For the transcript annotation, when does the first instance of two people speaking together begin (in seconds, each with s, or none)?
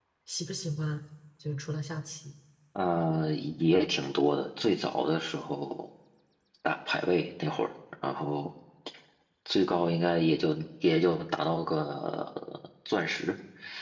none